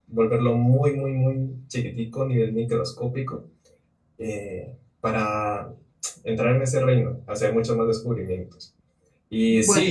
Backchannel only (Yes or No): Yes